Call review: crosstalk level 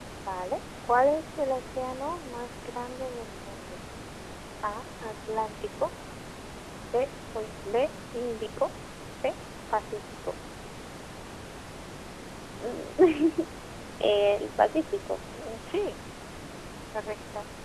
none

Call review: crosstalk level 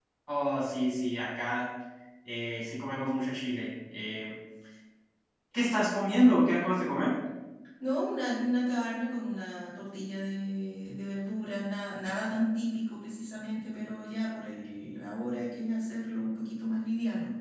none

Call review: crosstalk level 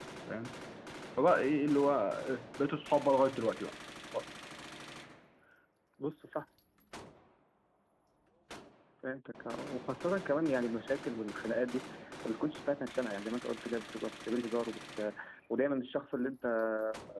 none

